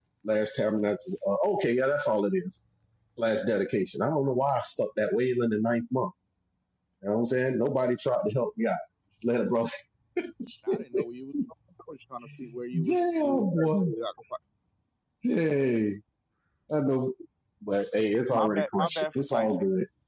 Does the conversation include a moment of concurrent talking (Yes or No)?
Yes